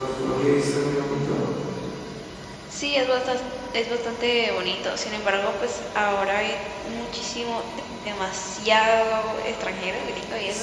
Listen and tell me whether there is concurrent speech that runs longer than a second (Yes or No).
No